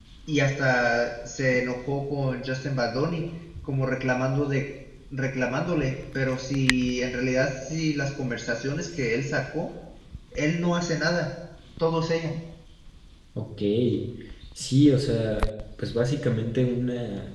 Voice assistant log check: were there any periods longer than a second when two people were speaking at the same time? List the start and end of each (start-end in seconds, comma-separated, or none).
none